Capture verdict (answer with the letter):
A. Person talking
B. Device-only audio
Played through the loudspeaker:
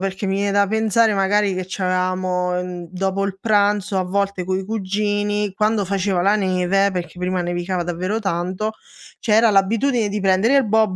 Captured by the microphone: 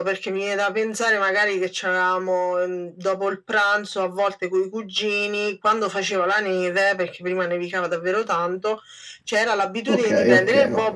A